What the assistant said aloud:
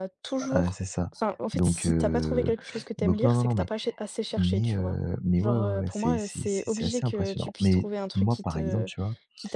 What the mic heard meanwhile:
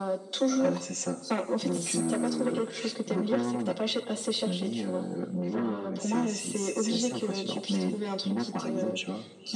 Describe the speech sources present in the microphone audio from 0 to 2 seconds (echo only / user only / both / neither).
echo only